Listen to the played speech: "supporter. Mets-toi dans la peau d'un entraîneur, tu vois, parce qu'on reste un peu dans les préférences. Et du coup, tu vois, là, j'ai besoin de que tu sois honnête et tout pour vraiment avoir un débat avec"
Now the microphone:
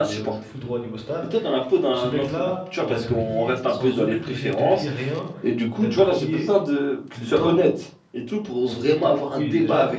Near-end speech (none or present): present